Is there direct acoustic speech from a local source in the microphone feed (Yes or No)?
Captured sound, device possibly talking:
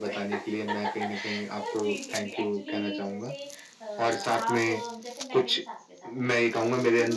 Yes